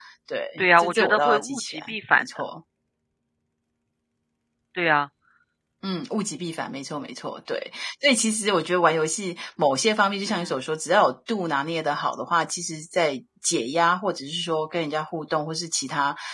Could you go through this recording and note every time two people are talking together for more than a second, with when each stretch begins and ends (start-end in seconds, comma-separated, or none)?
0.6-2.2